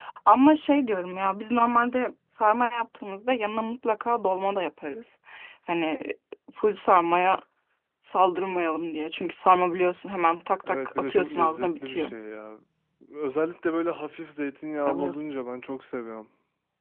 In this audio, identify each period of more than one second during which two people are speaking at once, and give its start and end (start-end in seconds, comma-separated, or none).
10.7-12.1